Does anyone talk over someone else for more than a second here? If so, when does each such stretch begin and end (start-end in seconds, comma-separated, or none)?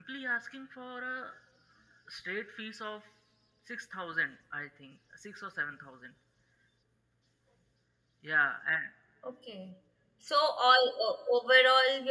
none